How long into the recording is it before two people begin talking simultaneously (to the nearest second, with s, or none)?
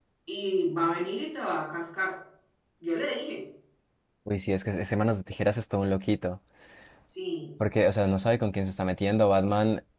none